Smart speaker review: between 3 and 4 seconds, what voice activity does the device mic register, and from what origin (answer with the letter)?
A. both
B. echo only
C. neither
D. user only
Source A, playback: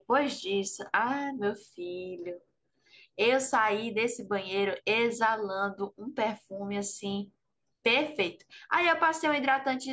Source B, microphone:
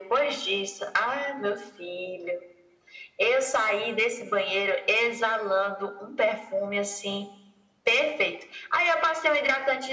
B